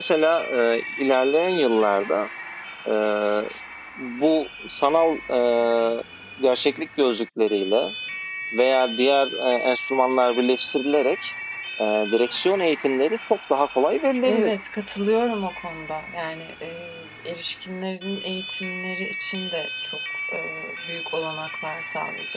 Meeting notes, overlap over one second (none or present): none